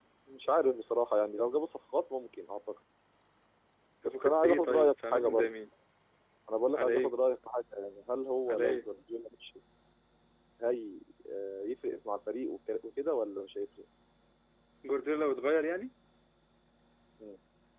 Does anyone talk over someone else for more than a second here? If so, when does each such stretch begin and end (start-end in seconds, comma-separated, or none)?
4.0-5.5